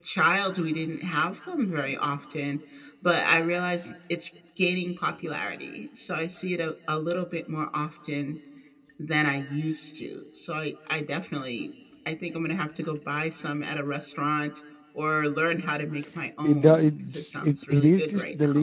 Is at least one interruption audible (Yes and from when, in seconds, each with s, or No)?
Yes, from 16.4 s